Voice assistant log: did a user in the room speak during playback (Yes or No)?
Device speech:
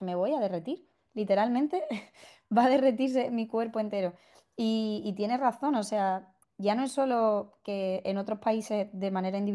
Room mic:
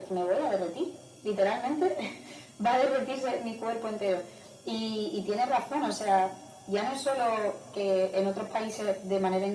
No